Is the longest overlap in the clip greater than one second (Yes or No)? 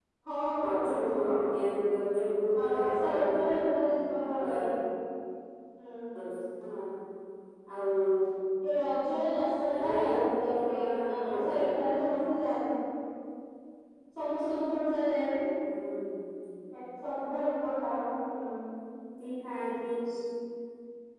Yes